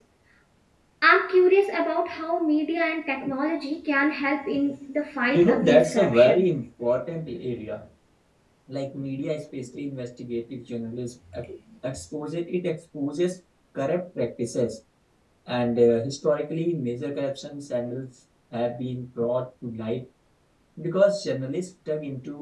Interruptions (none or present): present